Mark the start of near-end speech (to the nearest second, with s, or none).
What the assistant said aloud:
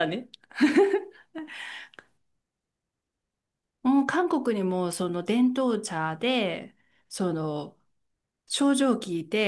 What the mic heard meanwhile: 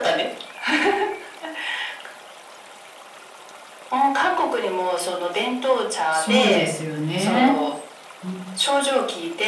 6 s